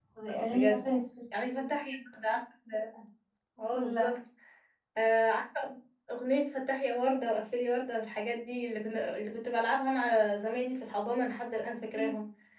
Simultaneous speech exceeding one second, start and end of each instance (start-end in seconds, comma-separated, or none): none